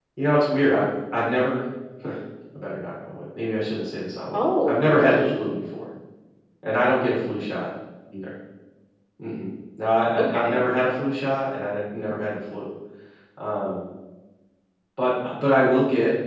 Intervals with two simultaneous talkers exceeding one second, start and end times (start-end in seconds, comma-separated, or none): 4.3-5.5